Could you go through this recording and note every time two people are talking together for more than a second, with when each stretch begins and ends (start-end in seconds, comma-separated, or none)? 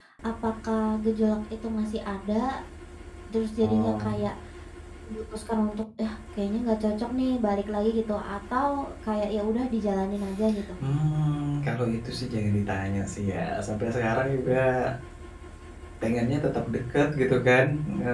none